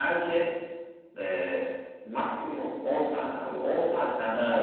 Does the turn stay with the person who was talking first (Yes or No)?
No